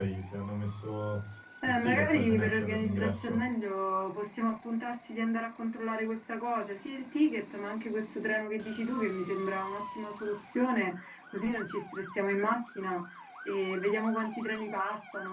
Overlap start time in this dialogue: 1.6 s

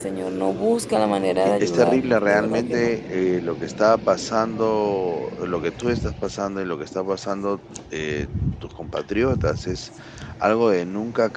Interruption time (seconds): 1.6 s

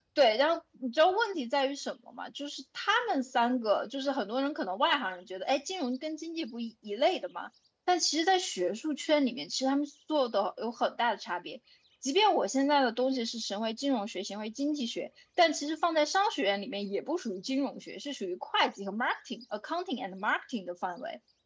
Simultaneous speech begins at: none

